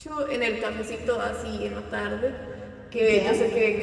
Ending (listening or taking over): listening